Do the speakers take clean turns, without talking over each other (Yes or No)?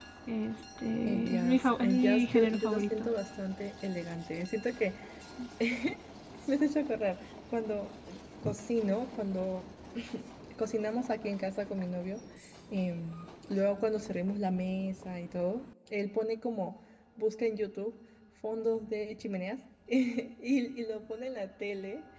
No